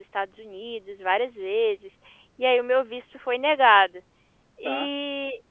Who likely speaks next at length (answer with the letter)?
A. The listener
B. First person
B